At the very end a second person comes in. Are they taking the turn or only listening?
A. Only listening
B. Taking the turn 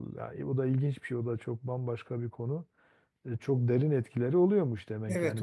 B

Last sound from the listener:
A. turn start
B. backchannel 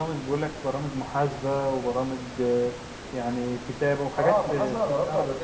A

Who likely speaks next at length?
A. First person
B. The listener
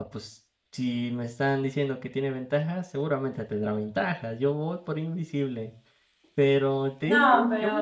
A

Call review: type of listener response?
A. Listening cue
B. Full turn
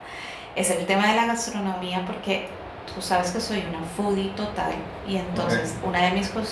A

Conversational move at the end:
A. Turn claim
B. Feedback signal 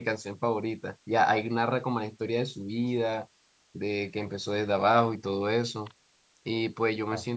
B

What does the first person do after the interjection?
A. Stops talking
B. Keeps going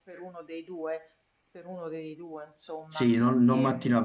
A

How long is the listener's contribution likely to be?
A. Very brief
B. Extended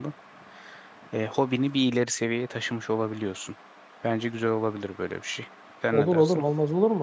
B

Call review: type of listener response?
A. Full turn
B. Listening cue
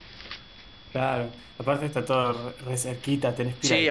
A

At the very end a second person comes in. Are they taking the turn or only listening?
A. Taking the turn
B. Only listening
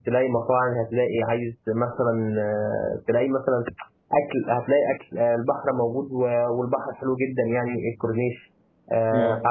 B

